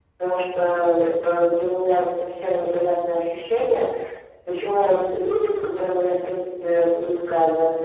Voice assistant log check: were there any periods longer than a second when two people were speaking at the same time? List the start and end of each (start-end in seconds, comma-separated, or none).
none